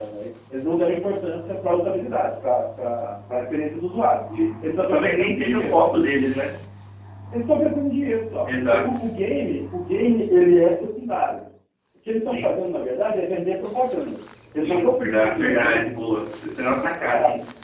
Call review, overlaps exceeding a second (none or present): present